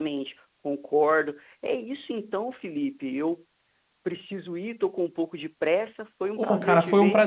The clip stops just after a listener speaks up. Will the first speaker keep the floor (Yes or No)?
No